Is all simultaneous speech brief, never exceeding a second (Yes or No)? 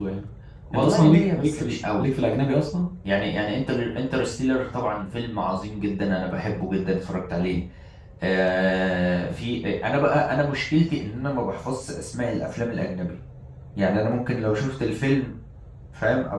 No